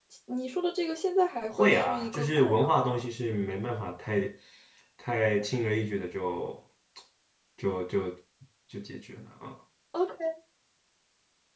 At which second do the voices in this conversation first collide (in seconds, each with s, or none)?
1.5 s